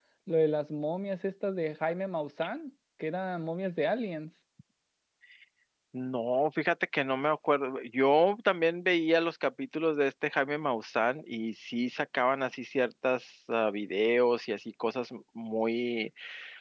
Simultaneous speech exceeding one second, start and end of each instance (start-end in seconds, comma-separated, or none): none